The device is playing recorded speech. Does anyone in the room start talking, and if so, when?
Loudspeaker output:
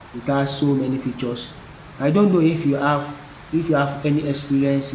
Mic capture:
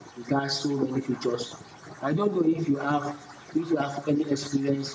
none

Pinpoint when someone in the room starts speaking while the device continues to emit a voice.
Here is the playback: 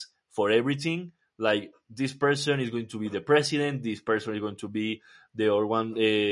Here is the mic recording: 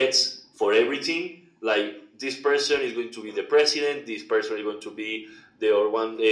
none

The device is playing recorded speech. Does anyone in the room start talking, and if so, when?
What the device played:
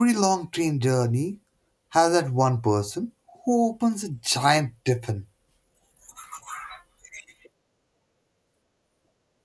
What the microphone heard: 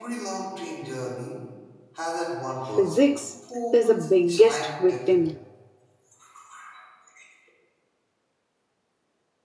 2.6 s

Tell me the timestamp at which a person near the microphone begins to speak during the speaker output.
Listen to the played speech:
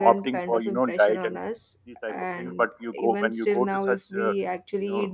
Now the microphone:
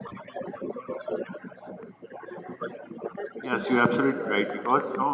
3.4 s

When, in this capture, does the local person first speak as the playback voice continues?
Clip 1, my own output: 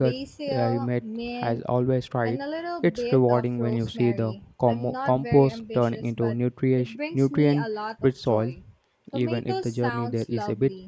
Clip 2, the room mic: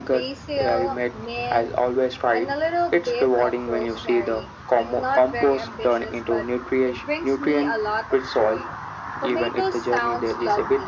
none

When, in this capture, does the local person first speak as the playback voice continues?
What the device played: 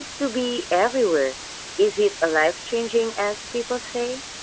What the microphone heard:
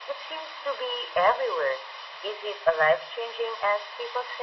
none

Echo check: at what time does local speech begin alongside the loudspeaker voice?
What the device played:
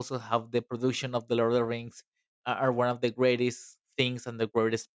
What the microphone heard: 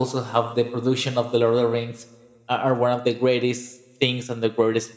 none

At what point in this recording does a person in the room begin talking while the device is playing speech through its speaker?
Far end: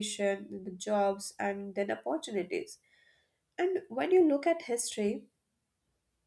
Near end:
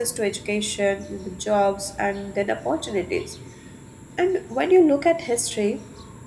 none

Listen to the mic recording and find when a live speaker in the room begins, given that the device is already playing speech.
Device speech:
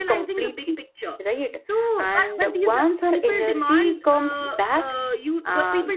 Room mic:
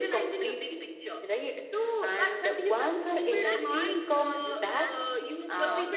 3.1 s

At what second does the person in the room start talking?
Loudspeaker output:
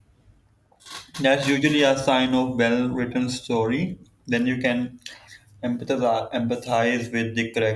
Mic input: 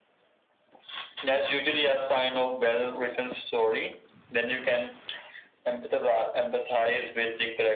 none

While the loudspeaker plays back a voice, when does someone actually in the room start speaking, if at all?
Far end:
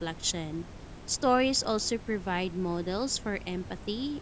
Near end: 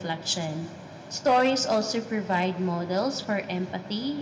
none

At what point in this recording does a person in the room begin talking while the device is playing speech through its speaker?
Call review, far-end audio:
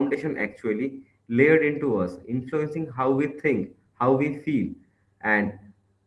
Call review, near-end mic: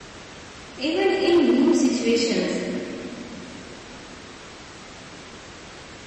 0.8 s

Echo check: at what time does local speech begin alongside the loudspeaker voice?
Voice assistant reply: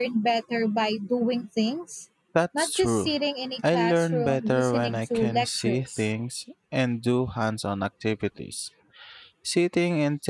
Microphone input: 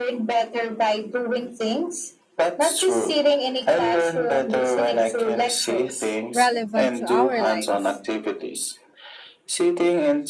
6.3 s

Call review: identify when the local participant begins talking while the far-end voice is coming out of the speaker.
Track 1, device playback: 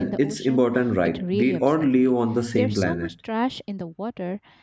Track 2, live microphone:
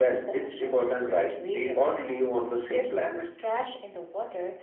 none

